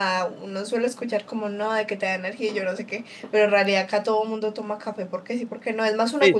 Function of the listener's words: taking over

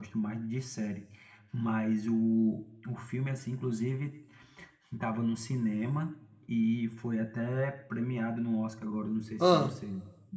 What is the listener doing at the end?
listening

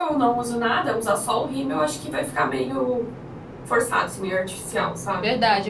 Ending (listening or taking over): taking over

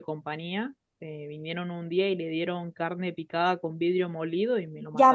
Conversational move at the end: taking over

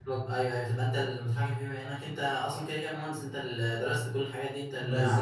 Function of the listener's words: taking over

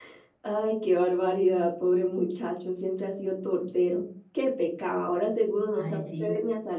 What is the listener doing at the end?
listening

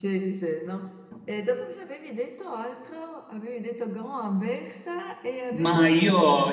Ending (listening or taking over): taking over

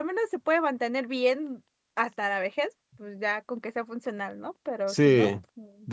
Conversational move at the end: taking over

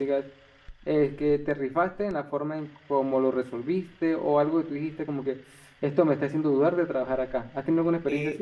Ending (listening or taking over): taking over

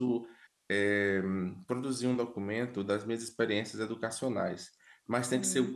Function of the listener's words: listening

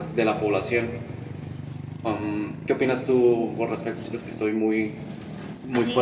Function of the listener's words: taking over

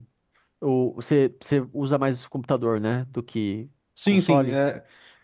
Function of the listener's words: taking over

